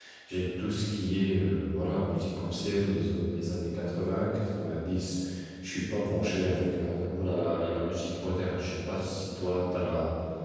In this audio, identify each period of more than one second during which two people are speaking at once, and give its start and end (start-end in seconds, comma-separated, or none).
none